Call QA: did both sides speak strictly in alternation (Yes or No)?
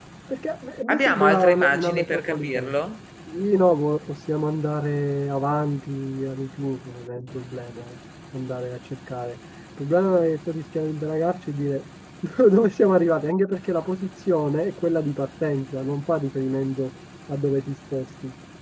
No